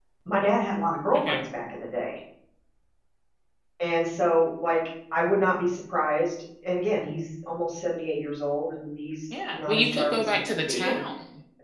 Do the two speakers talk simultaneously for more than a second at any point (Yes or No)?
Yes